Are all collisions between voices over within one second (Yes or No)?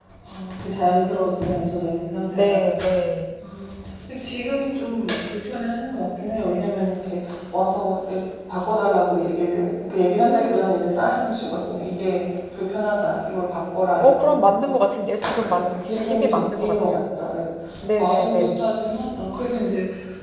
No